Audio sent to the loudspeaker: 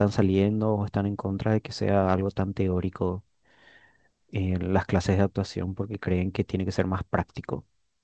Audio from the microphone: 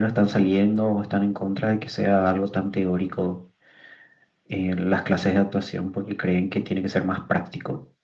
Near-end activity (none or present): none